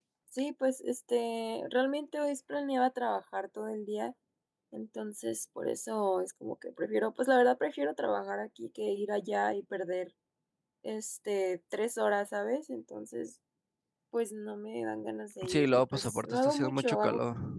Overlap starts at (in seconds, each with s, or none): 15.4 s